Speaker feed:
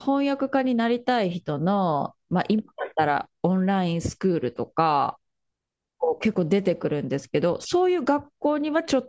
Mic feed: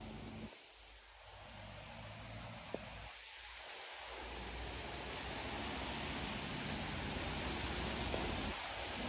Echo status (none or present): none